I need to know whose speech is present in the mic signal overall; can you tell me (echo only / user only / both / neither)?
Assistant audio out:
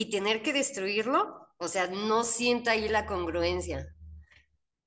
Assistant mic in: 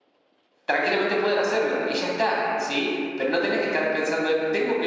user only